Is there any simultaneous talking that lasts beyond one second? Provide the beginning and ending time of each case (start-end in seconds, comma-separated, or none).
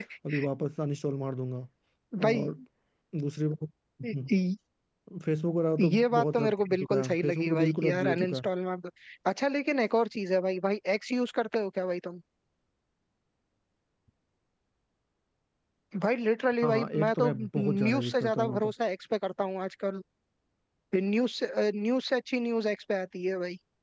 5.8-8.4, 16.6-18.7